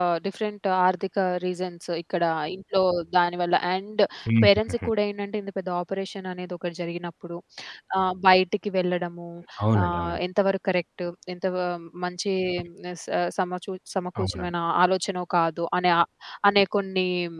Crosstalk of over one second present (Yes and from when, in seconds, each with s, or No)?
No